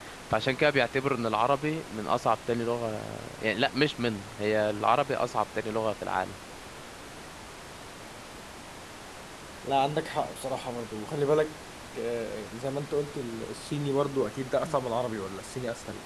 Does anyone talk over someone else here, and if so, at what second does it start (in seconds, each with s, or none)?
none